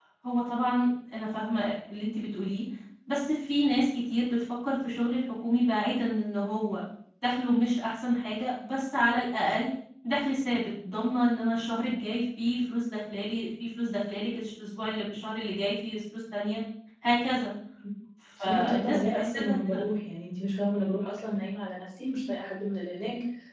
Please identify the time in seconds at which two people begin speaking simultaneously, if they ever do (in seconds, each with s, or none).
18.4 s